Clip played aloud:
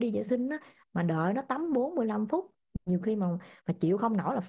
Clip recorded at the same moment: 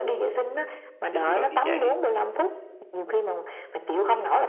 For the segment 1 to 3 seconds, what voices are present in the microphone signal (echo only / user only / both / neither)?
both